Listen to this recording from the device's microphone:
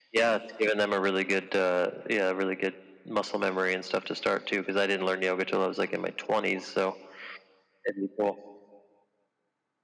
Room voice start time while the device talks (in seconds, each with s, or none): none